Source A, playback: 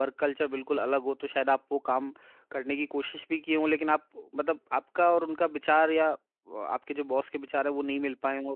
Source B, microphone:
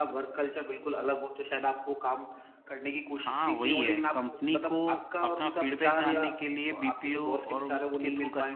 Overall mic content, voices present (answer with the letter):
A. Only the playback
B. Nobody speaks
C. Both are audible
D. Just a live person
C